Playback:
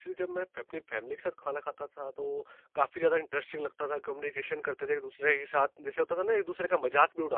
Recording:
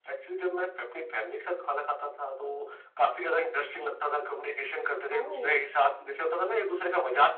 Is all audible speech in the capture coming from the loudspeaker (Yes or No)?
No